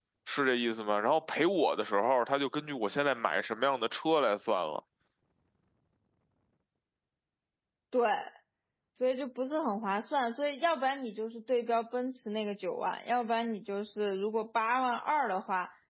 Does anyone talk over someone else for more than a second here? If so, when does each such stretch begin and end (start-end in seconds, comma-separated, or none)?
none